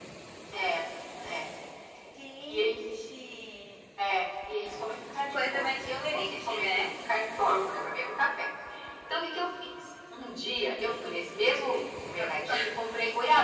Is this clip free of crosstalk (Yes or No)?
No